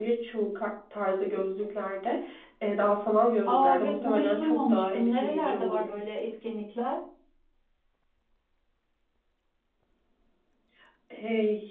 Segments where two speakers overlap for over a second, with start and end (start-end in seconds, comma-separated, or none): 3.5-5.8